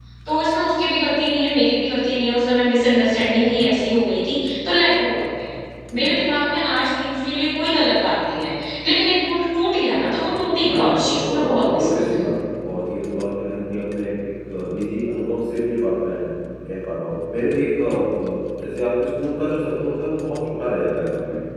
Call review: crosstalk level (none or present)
present